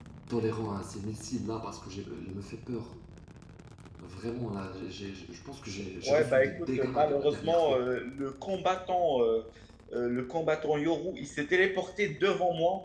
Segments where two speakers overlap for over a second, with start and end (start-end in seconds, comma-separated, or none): 6.0-7.8